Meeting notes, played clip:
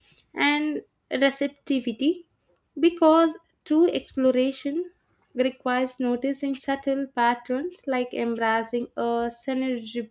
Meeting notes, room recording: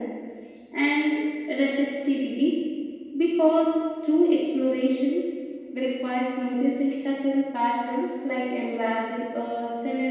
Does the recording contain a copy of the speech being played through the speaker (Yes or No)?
Yes